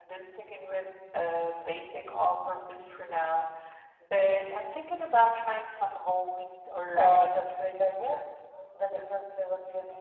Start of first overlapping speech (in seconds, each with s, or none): 6.9 s